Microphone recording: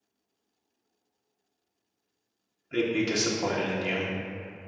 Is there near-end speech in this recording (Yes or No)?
Yes